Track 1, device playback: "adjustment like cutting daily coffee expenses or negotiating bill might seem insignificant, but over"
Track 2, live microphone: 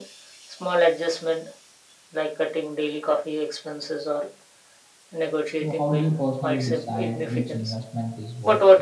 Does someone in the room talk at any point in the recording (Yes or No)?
Yes